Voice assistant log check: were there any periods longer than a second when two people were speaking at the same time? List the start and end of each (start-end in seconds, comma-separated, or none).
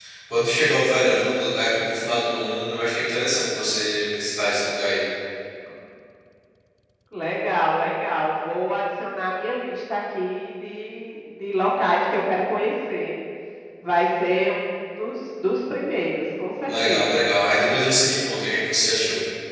none